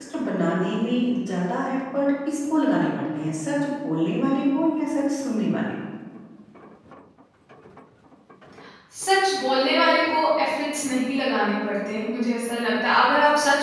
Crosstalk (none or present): none